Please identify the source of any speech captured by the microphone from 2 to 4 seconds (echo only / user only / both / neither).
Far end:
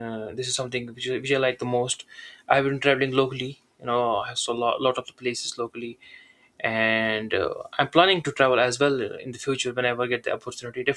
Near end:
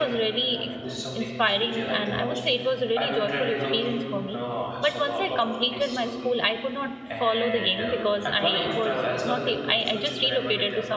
both